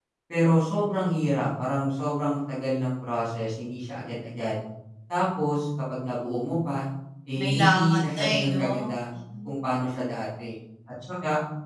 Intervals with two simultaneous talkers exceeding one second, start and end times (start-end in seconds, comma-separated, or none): 7.4-8.9